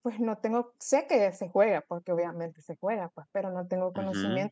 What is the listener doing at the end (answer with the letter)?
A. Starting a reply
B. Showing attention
B